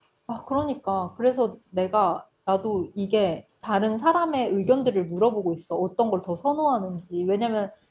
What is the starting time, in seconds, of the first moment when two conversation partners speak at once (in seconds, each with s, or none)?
none